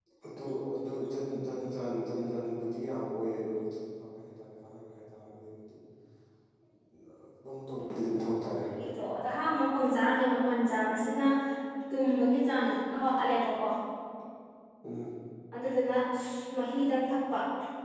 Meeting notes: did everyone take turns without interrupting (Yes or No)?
Yes